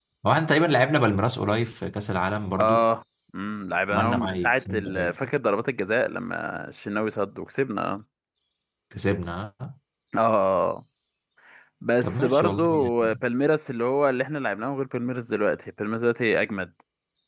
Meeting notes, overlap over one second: present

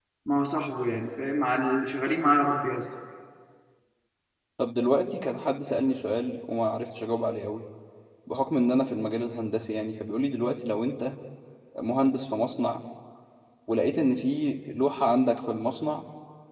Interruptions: none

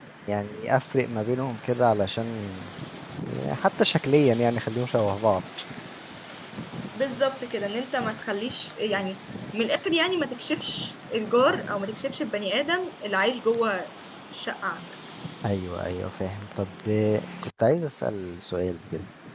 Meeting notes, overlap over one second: none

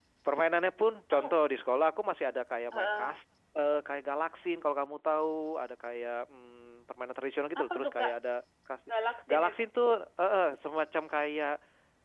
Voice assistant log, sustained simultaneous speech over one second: none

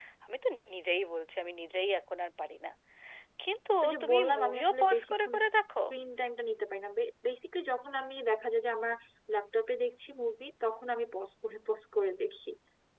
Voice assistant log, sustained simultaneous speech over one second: present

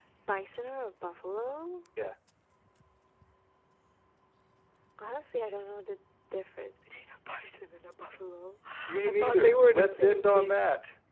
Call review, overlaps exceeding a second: present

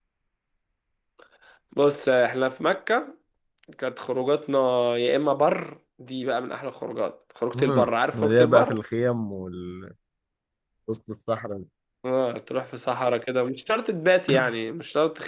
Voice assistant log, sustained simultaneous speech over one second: present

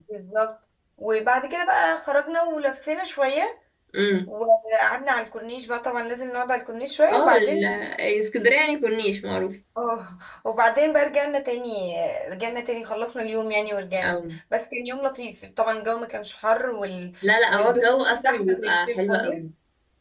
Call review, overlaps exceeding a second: present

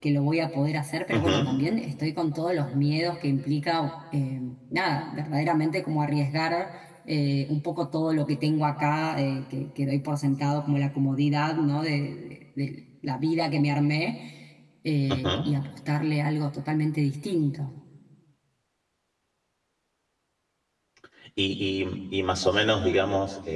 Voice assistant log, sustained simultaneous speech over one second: none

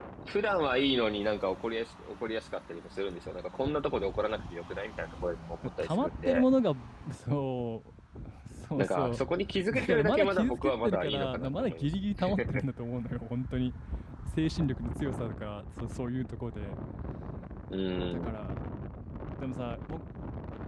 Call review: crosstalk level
present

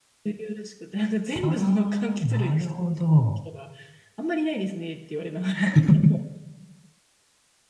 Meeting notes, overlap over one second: present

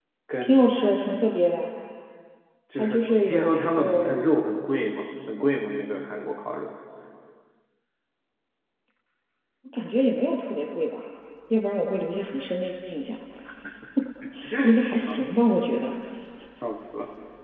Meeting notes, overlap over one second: present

